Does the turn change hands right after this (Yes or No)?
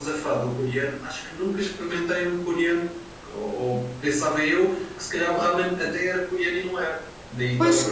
Yes